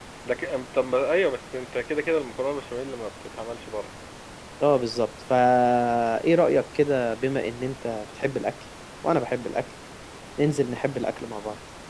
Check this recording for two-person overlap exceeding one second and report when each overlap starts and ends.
none

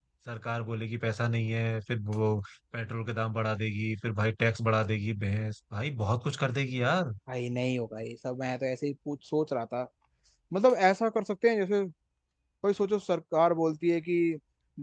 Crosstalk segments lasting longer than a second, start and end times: none

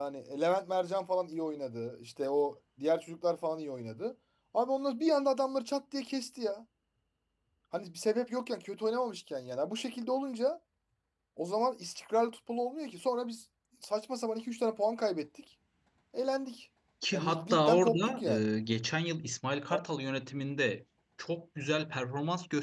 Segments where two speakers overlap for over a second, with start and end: 17.1-18.5

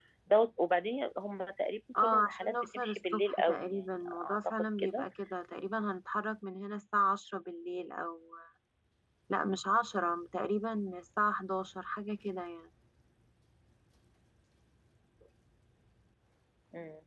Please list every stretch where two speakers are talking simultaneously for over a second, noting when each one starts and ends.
2.0-5.0

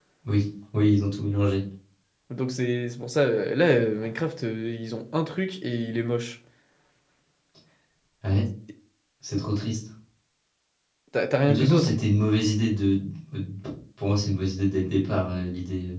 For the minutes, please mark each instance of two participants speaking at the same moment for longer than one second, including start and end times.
none

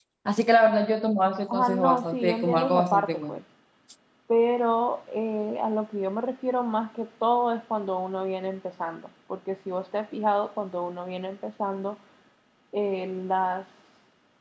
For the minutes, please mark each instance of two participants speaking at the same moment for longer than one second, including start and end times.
1.5-3.4

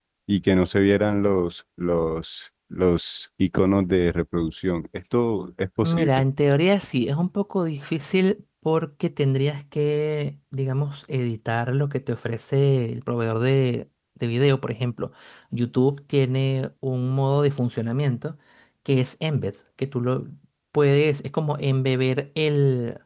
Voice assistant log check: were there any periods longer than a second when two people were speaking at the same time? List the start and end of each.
none

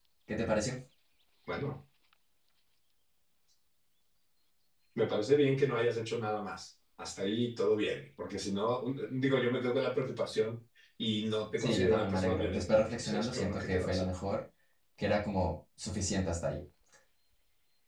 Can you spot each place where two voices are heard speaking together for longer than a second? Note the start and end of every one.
11.6-14.1

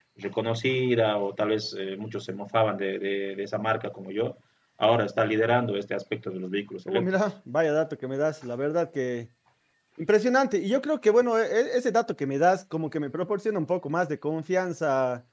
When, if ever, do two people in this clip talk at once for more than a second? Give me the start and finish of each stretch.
none

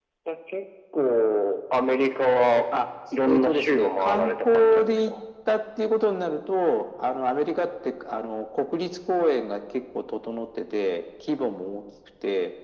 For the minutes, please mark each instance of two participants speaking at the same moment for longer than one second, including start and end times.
3.2-5.1

